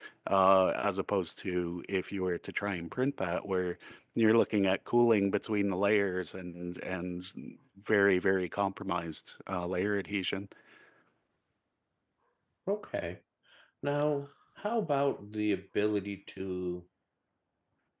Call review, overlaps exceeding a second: none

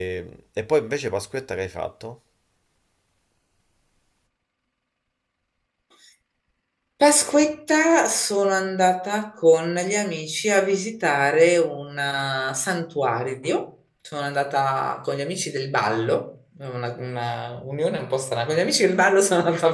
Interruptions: none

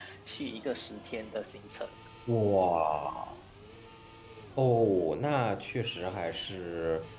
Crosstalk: none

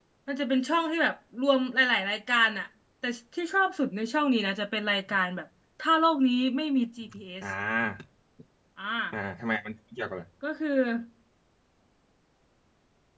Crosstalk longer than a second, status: none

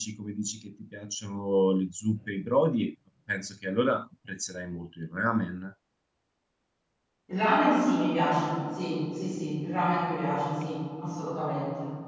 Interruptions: none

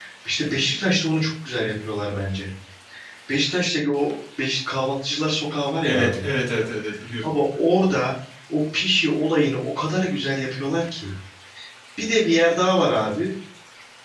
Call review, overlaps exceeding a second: none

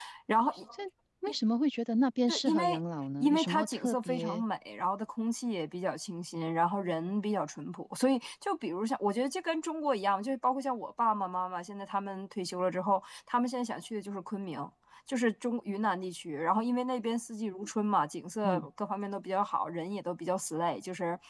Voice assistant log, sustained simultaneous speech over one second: present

